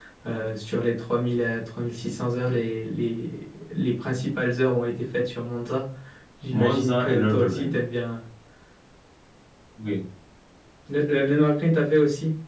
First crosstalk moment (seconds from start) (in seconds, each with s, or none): 6.5 s